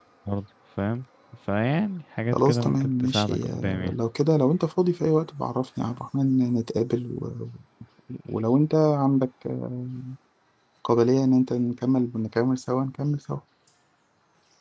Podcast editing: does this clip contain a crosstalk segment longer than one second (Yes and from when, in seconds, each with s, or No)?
Yes, from 2.3 s